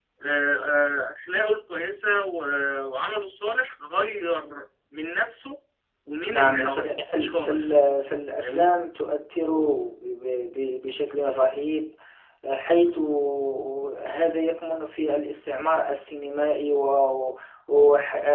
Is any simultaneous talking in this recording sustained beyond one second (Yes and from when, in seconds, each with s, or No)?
Yes, from 6.3 s